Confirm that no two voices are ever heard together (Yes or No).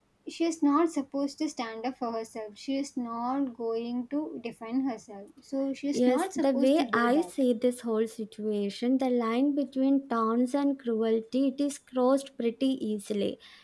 No